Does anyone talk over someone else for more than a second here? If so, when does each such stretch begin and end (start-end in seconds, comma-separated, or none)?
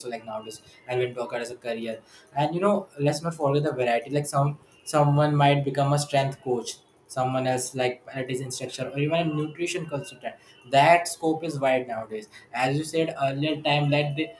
none